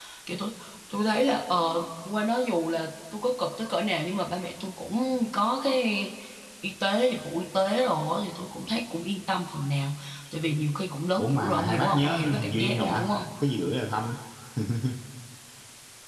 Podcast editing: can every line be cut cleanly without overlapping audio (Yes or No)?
No